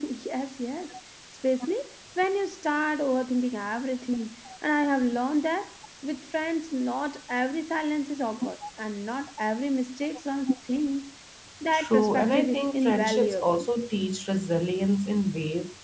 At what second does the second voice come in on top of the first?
11.7 s

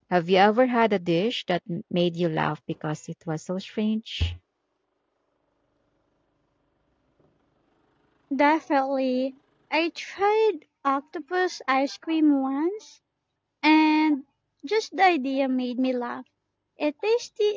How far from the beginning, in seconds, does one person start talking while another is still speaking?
none

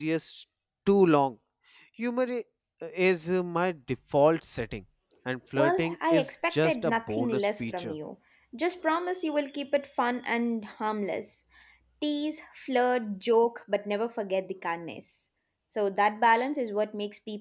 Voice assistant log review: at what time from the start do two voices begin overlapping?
5.6 s

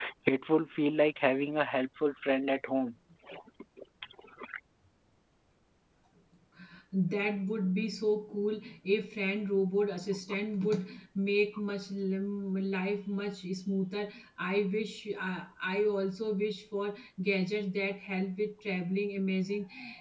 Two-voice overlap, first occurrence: none

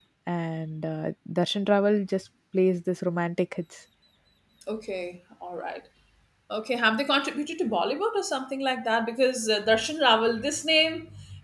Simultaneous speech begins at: none

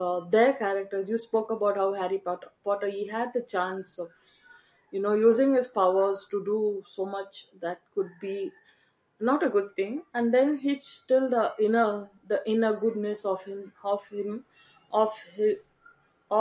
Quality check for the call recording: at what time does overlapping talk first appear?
none

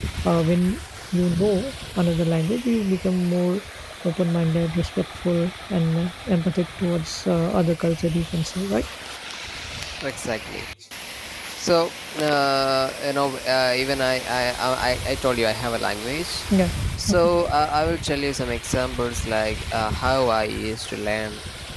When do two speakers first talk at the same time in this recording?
none

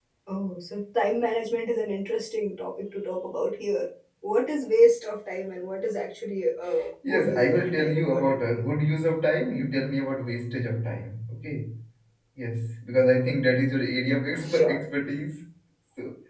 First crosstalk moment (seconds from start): 7.1 s

